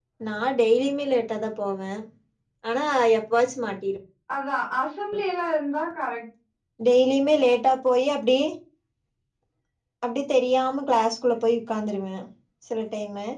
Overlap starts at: none

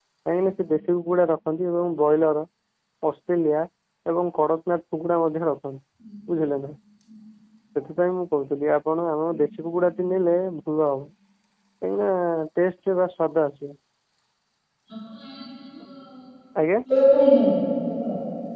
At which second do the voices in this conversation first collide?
none

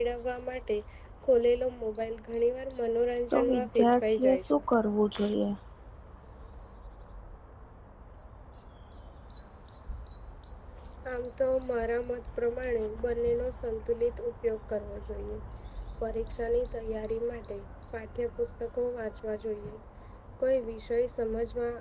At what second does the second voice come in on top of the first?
3.3 s

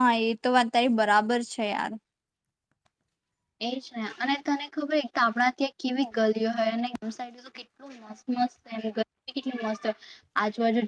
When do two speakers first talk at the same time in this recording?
none

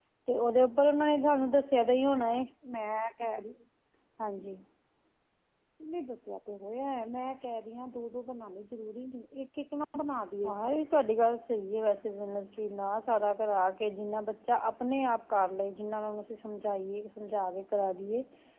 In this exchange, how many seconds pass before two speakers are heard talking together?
none

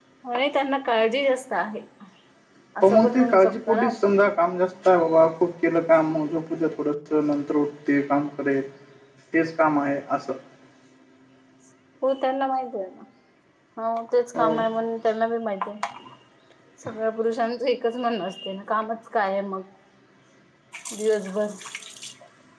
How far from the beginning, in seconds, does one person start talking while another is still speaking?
2.8 s

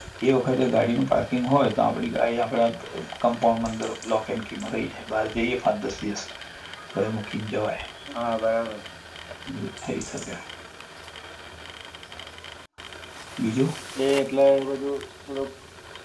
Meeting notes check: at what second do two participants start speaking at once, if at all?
none

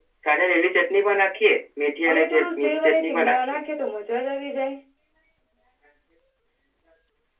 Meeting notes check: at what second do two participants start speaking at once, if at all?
2.1 s

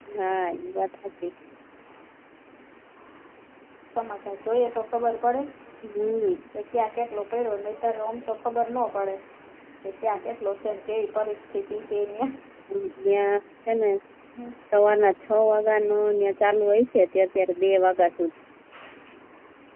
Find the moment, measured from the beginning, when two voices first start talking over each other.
none

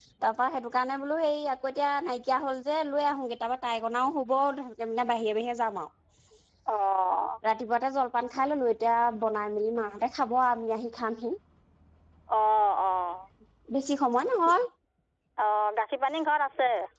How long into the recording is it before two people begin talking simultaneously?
none

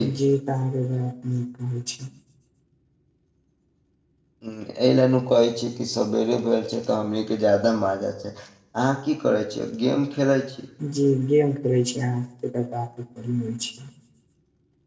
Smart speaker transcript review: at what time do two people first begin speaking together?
none

